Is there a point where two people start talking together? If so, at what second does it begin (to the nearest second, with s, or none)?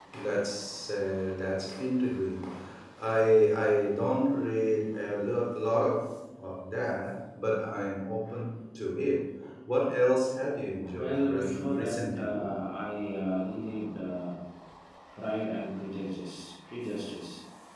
11 s